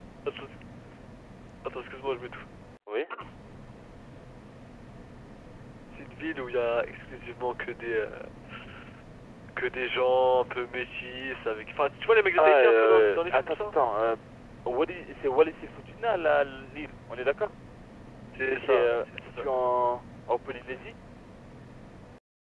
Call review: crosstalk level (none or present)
present